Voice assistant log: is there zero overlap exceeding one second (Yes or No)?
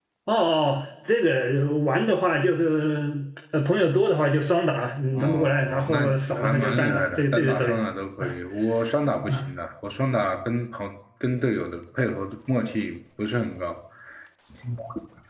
No